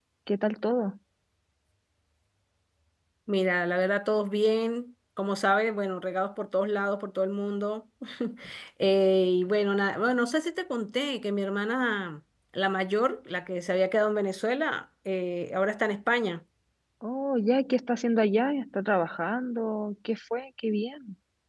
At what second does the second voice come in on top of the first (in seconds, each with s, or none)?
none